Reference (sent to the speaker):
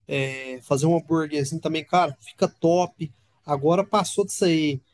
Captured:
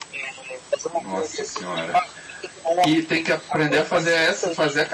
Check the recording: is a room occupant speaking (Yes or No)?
Yes